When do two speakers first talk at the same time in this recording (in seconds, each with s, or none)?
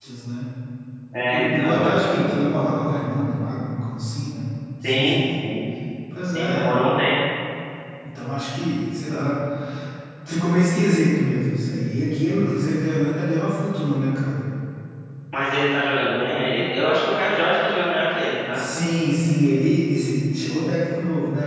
1.3 s